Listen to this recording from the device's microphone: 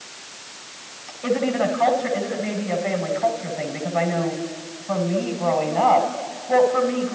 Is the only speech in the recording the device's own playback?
Yes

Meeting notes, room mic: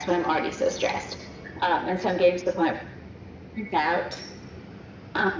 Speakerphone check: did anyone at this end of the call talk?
No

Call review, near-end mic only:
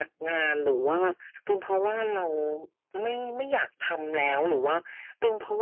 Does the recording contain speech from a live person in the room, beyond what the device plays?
No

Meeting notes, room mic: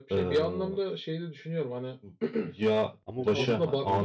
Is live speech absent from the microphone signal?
No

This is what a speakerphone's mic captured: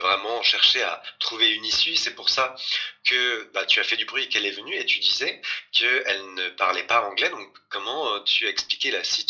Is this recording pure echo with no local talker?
Yes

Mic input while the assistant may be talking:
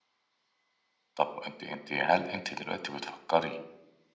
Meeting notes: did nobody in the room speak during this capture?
No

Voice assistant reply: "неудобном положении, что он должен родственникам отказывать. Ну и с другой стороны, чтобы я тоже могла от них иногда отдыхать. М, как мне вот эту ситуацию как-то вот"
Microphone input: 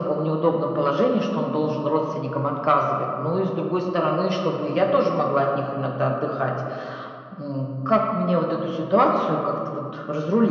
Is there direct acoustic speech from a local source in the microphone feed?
No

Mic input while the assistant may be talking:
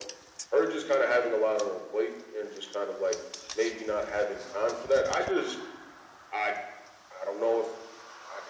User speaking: No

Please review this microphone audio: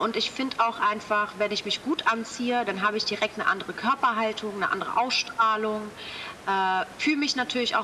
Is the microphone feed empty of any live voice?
Yes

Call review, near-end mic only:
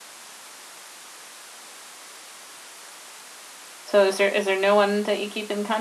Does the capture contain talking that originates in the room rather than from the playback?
Yes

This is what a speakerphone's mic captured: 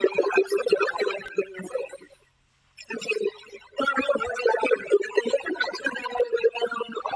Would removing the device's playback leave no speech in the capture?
Yes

